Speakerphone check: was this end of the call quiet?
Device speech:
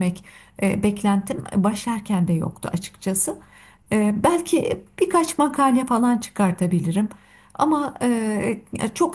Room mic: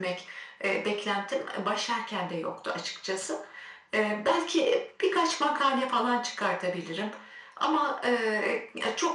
Yes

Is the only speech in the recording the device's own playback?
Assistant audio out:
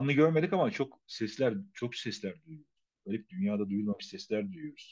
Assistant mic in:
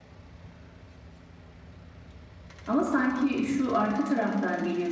No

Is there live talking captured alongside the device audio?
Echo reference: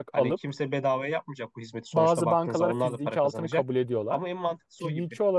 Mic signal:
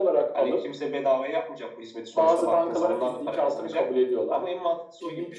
No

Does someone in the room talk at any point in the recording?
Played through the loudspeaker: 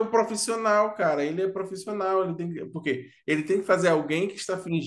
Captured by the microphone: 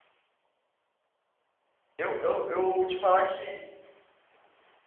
Yes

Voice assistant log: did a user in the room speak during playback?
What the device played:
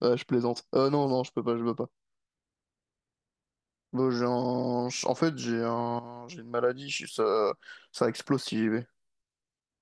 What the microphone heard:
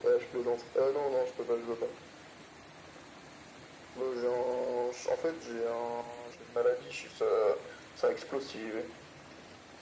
No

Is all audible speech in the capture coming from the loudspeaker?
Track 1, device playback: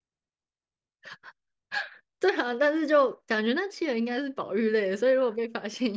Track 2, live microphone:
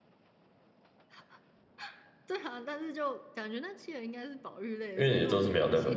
No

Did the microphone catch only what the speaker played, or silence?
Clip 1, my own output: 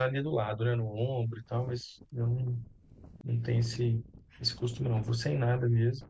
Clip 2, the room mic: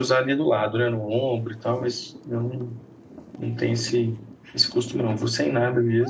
Yes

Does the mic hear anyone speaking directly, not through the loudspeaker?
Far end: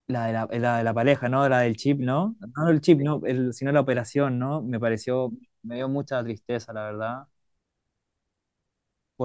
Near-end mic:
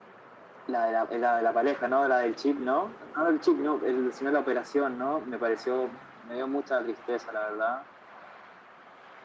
No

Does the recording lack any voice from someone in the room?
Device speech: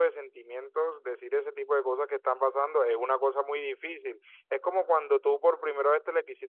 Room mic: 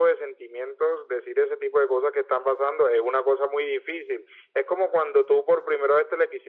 Yes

